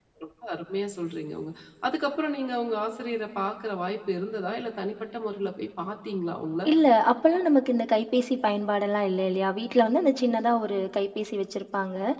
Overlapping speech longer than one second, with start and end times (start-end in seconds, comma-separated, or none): none